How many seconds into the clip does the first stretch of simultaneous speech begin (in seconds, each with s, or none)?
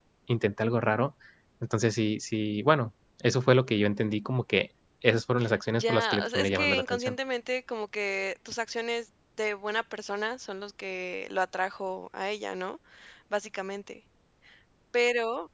5.7 s